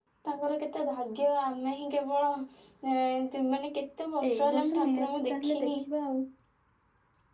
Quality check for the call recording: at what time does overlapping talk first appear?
4 s

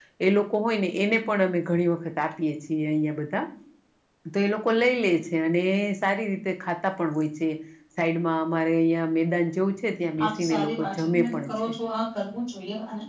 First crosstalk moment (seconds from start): 10 s

